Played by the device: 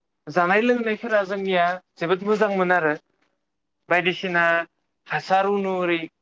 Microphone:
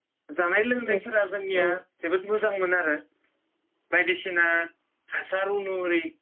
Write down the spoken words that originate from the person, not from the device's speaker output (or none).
औ-औ।